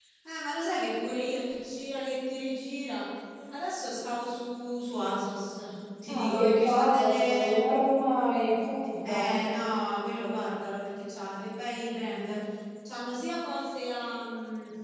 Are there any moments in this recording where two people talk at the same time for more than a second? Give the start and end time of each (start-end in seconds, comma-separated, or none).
6.1-7.5